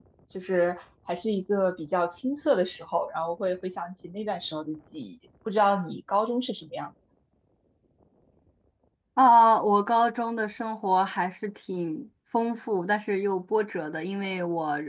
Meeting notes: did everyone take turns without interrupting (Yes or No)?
Yes